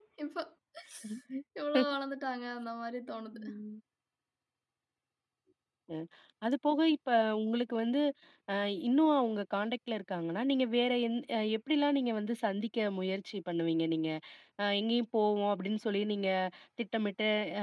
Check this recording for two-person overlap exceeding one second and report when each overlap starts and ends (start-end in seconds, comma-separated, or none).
none